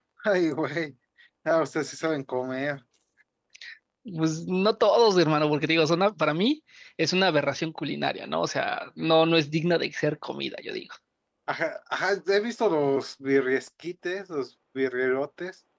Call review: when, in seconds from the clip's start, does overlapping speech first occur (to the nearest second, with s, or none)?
none